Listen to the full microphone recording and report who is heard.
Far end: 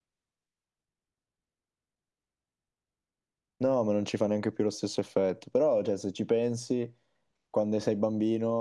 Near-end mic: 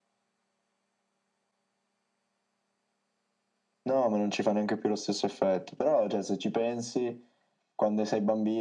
echo only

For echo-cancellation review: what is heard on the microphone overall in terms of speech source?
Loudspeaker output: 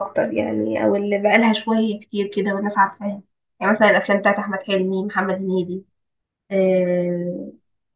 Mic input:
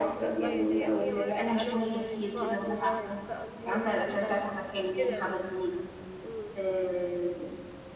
both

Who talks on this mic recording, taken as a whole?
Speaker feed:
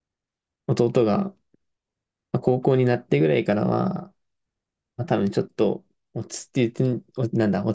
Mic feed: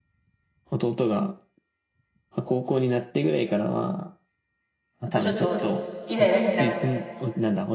both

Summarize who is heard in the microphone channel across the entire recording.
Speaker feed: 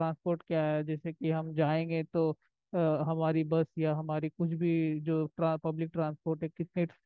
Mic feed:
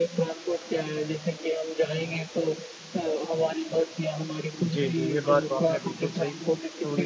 both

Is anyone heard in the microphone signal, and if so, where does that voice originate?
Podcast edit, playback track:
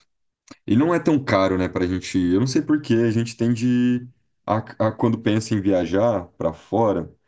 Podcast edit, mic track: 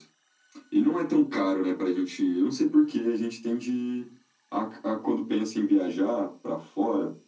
echo only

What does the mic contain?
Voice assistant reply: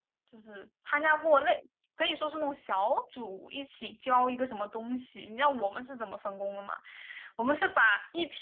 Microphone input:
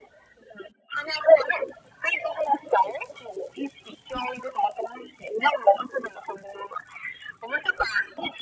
echo only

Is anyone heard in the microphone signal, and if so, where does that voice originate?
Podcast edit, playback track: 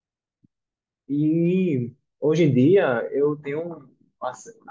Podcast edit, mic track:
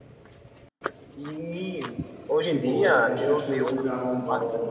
both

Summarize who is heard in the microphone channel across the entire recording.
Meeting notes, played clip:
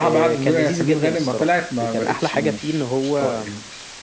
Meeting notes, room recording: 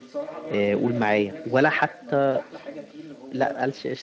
both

